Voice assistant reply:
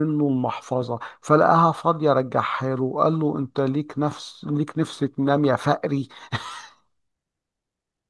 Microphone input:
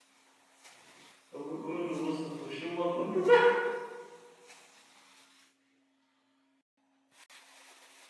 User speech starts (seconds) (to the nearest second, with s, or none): 1 s